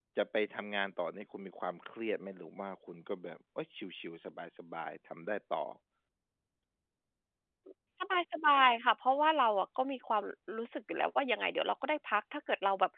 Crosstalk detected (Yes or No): No